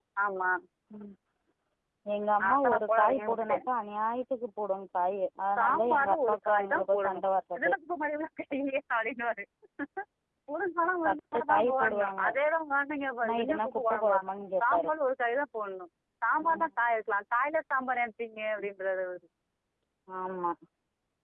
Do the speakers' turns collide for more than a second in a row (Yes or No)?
Yes